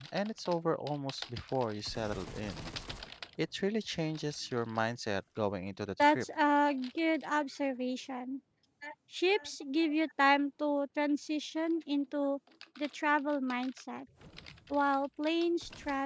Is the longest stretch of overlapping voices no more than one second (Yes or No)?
Yes